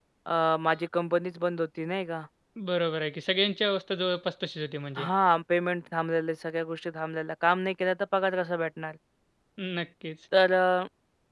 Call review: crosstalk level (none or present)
none